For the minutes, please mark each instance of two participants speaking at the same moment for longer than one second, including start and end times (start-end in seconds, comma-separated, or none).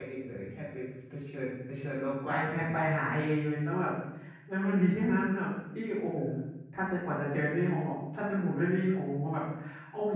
none